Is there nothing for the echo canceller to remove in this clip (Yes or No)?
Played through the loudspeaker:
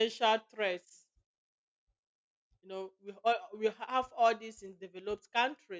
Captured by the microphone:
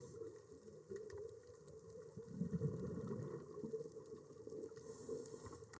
Yes